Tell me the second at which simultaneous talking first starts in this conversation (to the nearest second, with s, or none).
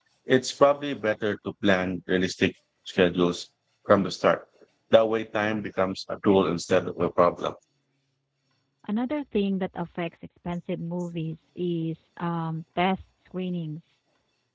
none